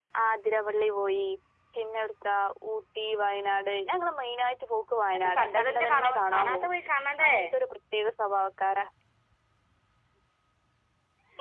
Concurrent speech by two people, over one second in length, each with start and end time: 5.2-6.7

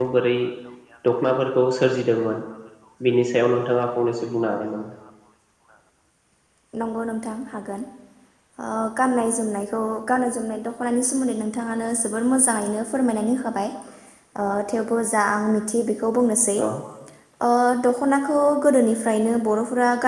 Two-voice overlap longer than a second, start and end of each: none

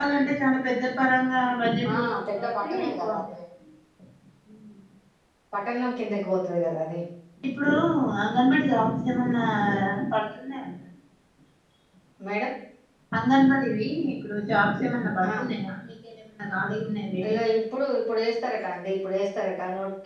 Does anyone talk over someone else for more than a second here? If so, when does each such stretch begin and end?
1.9-3.2

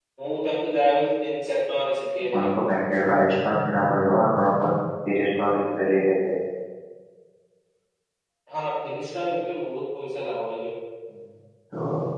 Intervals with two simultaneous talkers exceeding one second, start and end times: none

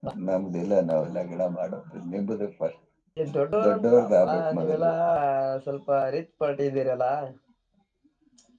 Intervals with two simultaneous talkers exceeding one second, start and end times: 3.6-4.9

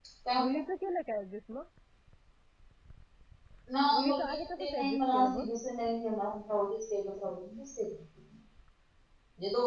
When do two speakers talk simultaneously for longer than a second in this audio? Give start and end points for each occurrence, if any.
4.0-5.5

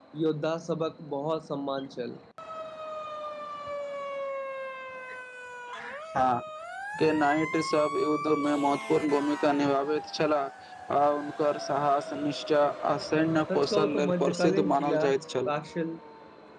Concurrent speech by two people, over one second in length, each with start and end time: 13.6-15.0

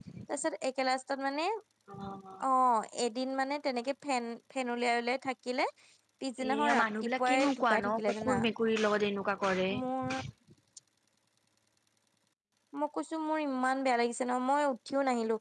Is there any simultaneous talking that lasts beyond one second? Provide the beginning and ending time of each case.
6.4-8.3

